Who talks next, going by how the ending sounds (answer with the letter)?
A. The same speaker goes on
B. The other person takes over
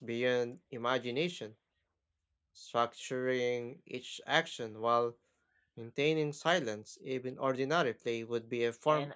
B